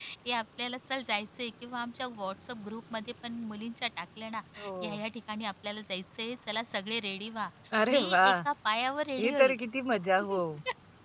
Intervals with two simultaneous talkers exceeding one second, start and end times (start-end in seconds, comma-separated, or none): none